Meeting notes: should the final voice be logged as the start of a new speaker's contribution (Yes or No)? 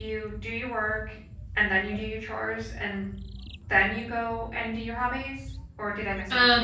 Yes